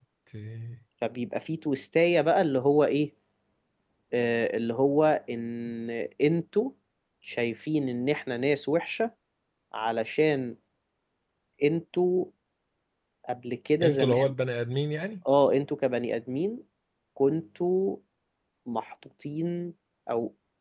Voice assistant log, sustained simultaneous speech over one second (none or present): none